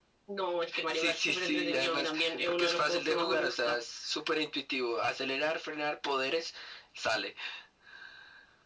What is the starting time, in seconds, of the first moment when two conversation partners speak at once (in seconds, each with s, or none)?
0.9 s